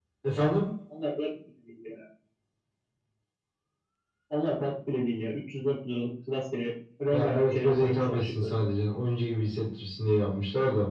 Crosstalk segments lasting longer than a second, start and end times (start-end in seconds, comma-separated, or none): 7.1-8.6